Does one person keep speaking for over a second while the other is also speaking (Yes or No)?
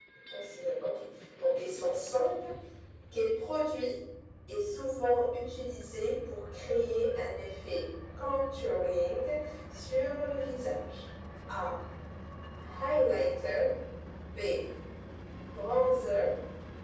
No